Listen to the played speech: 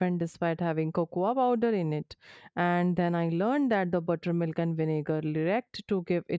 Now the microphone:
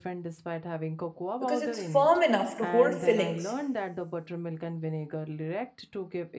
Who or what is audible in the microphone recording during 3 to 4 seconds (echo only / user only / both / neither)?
both